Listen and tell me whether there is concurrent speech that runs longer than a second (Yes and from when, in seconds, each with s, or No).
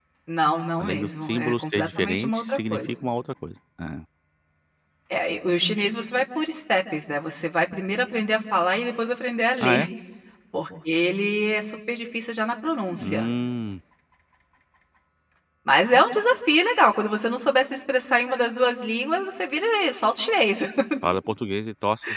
Yes, from 0.8 s